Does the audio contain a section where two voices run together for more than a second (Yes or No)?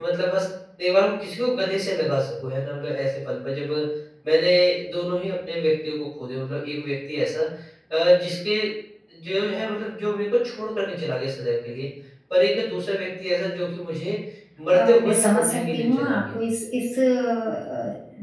Yes